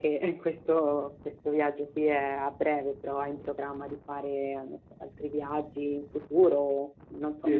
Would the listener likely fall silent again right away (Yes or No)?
No